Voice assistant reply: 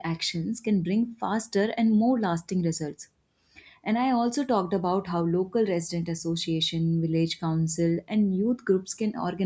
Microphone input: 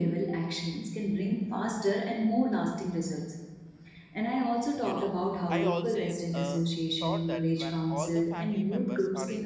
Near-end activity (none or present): present